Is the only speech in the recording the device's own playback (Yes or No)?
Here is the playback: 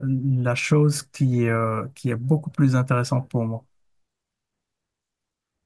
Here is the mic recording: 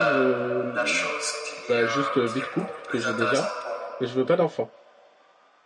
No